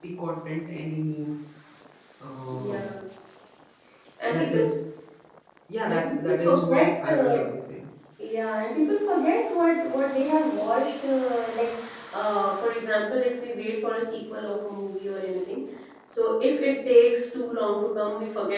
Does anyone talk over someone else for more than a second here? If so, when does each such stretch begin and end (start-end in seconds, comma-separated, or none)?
5.9-7.4